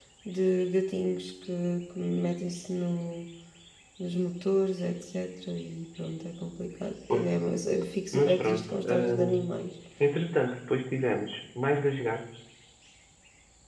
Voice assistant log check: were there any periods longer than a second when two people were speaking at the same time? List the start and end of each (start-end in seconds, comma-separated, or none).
8.1-9.4